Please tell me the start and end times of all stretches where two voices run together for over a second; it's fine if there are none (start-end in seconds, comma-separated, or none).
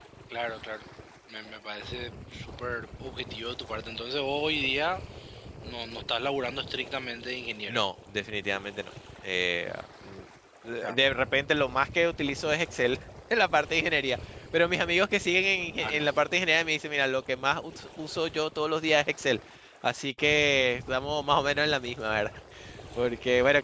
none